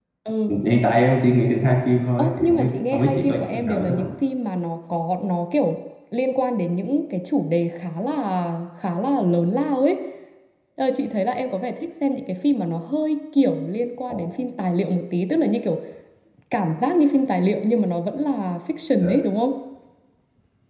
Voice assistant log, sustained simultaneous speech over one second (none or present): present